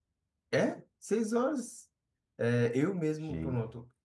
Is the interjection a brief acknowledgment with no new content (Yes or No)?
Yes